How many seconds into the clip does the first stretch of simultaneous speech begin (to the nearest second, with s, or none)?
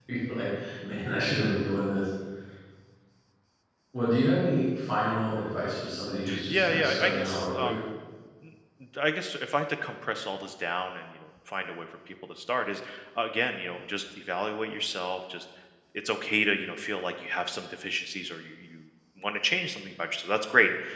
6 s